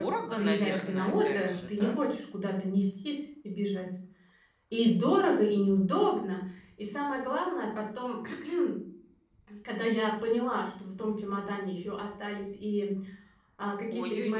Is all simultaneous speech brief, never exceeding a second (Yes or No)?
No